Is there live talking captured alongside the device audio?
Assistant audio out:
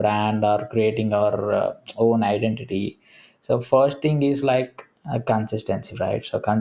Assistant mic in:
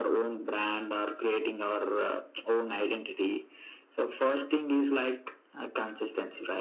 No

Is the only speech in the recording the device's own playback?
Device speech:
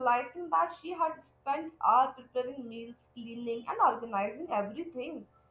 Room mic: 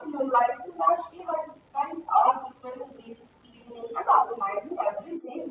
Yes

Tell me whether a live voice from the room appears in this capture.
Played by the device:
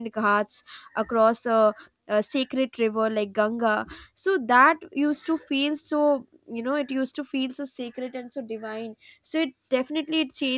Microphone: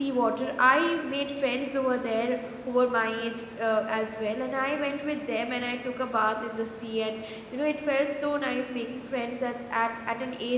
Yes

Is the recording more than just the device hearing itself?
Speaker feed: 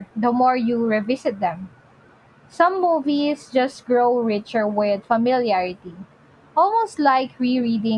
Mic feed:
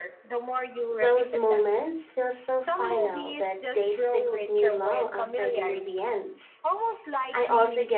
Yes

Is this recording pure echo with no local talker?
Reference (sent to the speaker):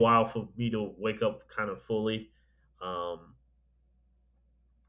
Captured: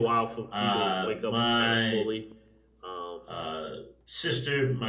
No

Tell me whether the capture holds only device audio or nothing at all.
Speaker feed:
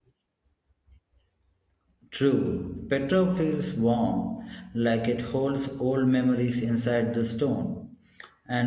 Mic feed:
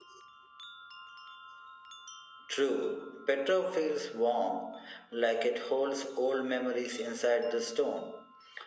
Yes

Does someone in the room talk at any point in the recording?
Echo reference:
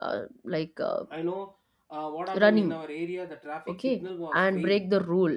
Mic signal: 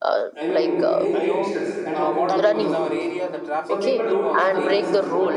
Yes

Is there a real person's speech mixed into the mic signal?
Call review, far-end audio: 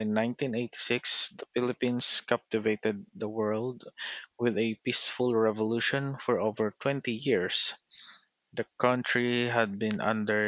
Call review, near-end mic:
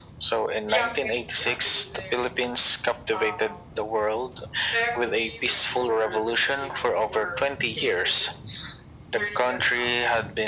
Yes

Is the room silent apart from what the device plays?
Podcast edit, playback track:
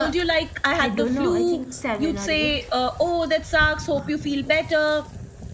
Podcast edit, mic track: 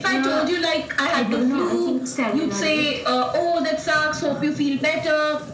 Yes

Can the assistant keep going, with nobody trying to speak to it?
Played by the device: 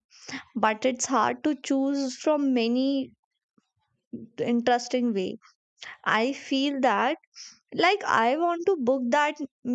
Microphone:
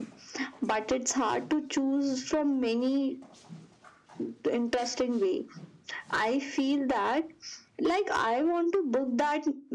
Yes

